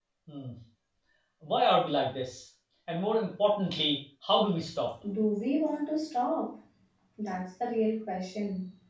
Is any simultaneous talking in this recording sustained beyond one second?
No

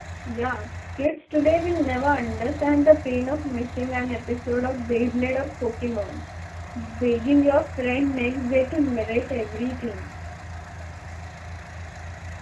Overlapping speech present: No

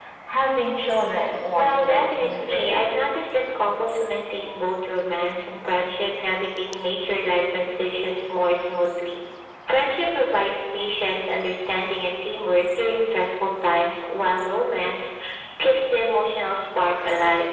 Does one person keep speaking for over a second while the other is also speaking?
Yes, from 1.6 s

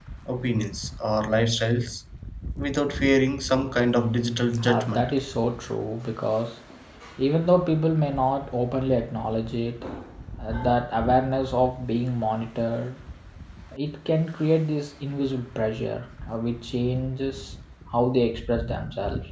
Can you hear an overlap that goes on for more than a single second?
No

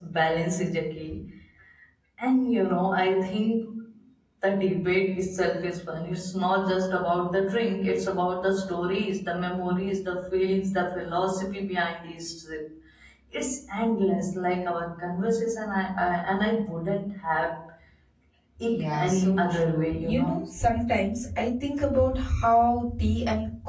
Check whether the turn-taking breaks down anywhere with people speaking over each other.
Yes, from 18.7 s

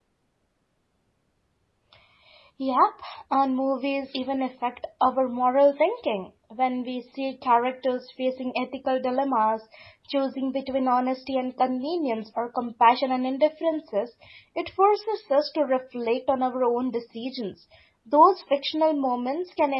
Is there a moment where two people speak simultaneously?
No

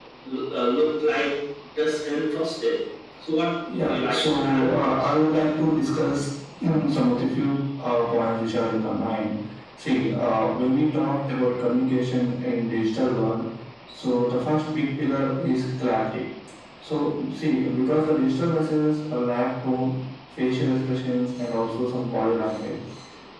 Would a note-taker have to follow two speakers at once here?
Yes, from 3.7 s

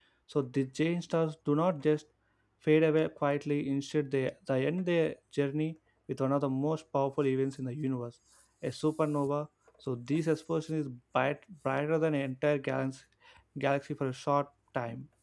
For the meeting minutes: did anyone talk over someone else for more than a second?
No

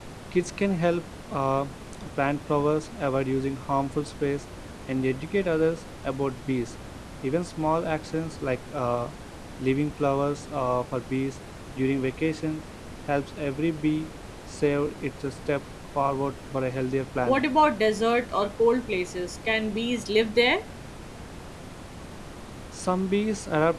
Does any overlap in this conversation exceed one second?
No

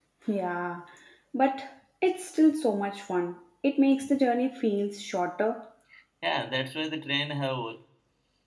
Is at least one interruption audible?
No

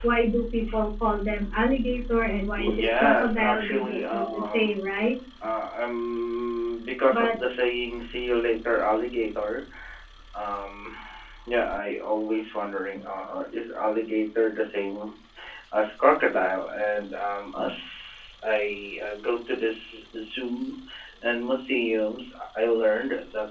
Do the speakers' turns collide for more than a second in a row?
Yes, from 2.6 s

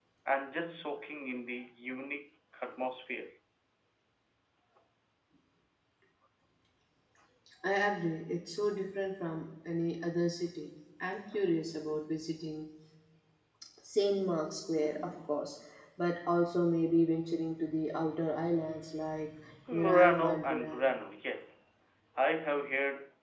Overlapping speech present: Yes, from 19.7 s

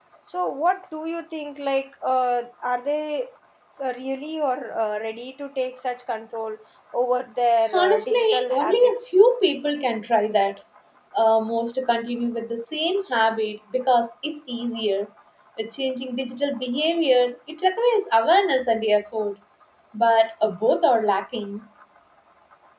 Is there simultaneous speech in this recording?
Yes, from 7.7 s

